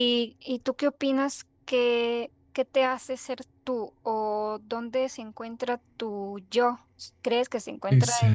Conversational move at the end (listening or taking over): listening